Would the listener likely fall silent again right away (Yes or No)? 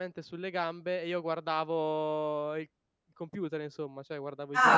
No